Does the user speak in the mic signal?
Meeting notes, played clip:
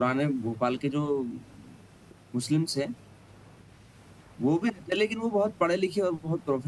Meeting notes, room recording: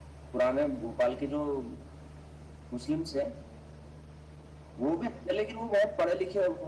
No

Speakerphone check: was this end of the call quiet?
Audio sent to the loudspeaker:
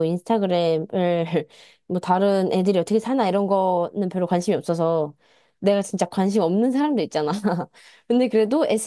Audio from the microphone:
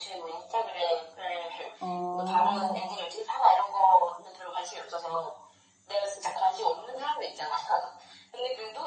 No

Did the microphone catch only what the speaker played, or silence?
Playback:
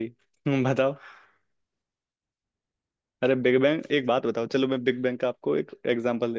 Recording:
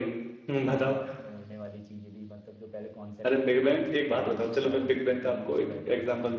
No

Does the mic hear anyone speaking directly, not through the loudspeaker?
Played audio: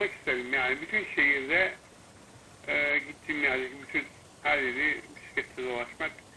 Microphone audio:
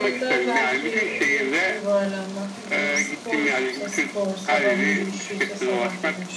Yes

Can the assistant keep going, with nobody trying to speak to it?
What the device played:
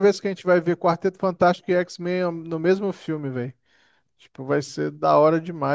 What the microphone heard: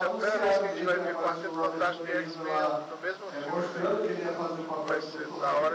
No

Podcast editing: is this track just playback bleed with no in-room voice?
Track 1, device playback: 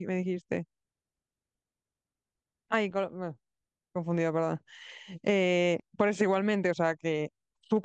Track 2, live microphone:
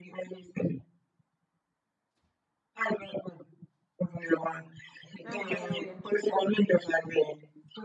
No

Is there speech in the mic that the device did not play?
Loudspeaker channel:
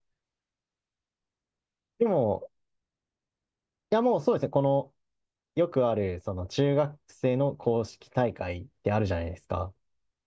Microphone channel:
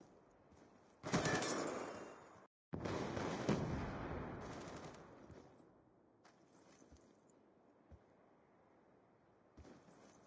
No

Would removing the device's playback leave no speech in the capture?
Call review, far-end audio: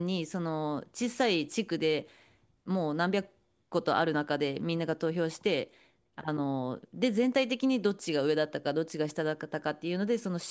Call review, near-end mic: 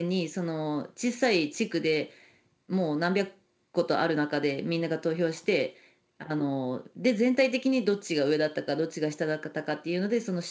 Yes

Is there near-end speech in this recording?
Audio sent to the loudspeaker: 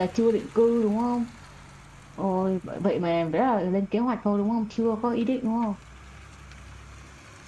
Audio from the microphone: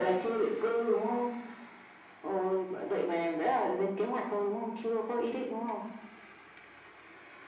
No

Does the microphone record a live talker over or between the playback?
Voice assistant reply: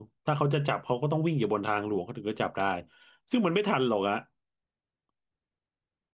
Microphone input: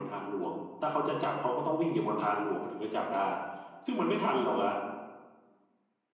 No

